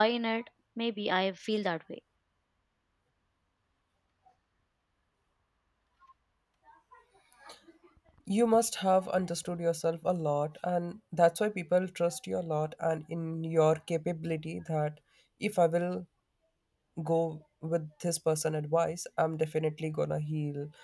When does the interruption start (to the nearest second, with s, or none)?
none